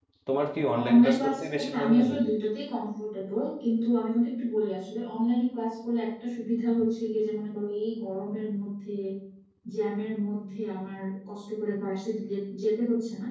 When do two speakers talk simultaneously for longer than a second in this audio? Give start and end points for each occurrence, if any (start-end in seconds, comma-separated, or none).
0.9-2.2